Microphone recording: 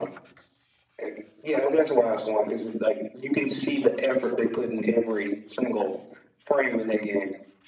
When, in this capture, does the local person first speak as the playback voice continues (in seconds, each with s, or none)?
none